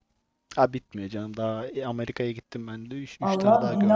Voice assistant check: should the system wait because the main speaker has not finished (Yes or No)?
No